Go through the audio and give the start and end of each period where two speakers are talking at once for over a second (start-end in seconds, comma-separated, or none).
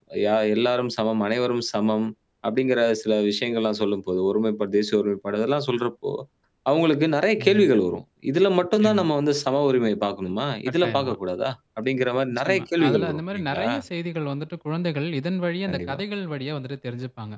12.3-13.7